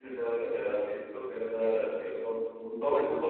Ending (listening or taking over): listening